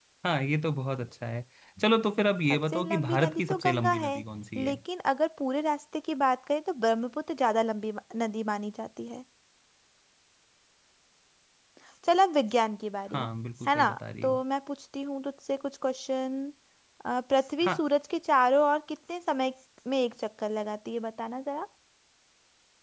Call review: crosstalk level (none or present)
present